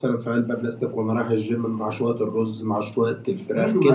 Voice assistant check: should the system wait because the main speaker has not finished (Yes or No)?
No